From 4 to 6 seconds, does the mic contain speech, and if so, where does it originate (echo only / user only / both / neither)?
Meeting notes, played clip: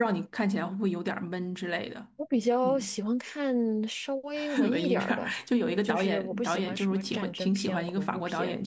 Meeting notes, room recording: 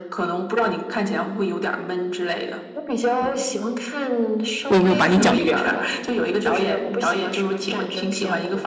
both